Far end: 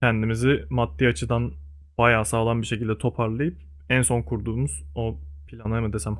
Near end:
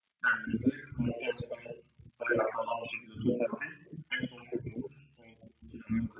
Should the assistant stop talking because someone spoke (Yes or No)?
No